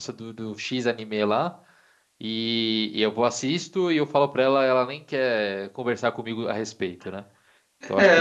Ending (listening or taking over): taking over